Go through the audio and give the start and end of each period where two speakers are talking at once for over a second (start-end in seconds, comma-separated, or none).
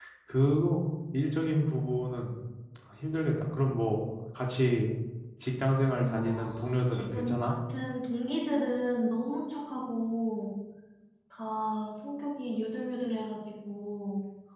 6.0-7.5